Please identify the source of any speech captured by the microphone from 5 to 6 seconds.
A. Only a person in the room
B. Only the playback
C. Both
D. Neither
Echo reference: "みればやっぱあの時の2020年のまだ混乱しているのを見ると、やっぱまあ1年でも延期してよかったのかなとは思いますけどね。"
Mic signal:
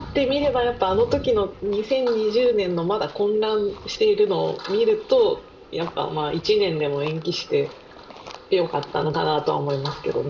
B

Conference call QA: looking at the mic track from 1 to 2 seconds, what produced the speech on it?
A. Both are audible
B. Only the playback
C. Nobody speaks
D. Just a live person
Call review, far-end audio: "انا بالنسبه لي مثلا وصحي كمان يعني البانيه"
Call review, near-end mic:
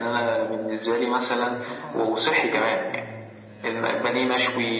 A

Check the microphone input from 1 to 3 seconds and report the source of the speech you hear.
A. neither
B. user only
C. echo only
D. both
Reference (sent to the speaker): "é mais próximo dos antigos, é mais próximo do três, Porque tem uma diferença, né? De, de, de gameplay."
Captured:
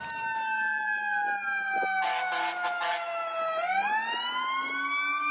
A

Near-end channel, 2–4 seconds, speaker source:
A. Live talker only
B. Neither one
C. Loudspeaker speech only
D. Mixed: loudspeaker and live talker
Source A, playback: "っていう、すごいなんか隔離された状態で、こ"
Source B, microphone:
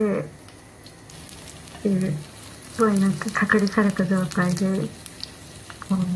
C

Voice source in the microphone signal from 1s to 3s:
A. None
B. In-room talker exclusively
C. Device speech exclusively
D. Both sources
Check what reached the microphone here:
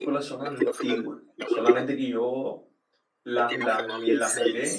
D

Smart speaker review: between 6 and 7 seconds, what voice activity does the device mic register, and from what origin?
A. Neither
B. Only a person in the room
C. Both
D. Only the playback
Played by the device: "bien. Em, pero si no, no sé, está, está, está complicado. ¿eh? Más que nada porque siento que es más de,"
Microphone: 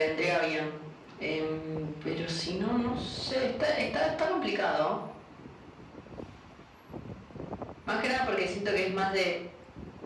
A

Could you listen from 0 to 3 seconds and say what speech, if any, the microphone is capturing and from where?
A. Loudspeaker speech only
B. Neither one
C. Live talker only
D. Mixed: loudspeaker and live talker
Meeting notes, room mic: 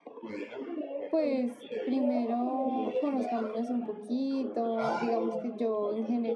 D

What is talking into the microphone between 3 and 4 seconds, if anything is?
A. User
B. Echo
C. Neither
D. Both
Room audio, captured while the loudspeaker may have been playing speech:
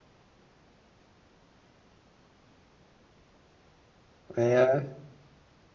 C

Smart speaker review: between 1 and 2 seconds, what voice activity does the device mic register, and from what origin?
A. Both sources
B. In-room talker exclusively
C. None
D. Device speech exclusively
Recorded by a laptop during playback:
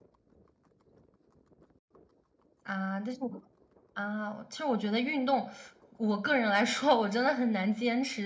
C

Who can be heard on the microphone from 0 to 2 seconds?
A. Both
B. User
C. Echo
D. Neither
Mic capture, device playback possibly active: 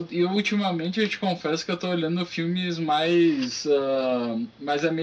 C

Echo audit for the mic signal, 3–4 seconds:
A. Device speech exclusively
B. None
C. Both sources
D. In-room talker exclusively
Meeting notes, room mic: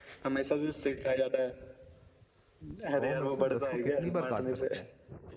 C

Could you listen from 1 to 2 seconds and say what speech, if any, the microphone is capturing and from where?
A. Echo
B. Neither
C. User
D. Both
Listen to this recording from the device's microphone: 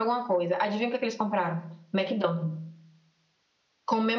A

